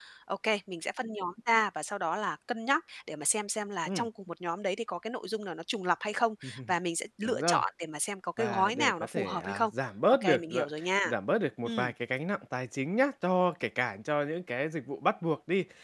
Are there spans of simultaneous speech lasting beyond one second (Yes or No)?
Yes